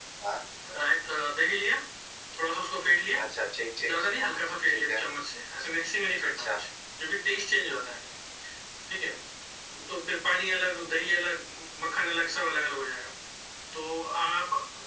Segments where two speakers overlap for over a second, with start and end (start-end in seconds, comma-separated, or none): none